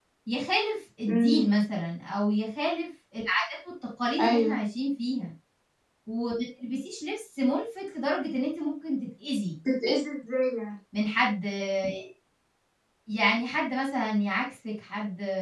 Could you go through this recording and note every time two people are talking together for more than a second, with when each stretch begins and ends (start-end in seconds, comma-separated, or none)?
none